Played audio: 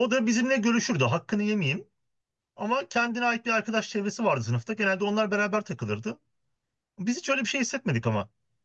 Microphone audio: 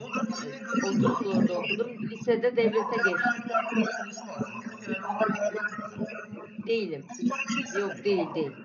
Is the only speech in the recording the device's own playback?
No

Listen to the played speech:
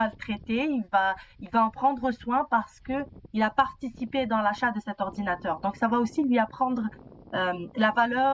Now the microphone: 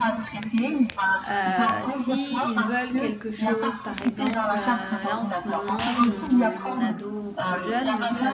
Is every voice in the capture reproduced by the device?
No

